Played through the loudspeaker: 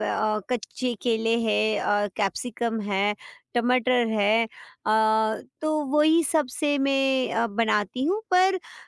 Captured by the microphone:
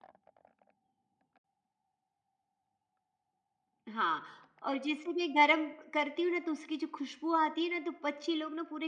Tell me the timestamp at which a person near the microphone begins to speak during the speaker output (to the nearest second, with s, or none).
4 s